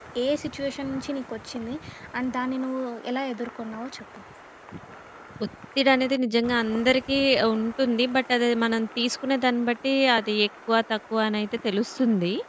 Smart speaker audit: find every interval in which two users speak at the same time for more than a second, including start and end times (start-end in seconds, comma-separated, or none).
none